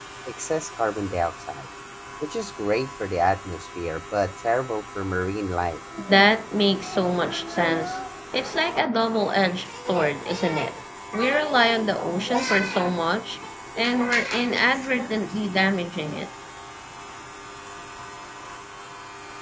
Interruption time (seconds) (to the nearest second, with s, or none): none